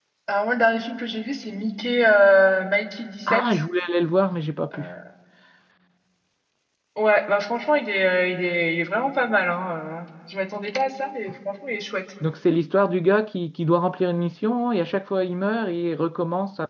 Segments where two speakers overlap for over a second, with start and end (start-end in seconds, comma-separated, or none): none